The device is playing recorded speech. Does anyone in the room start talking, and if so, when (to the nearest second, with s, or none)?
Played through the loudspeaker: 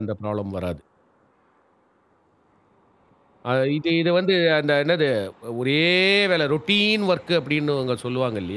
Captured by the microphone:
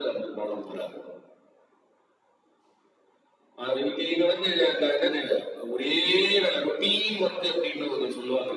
none